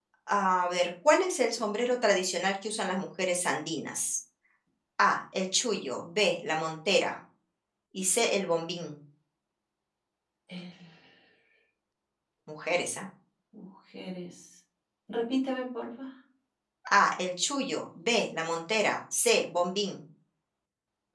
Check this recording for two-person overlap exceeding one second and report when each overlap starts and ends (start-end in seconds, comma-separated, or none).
none